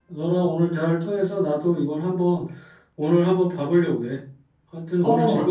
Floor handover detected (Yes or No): Yes